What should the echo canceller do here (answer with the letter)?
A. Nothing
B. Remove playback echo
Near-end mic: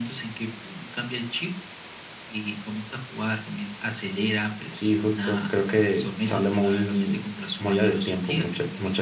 B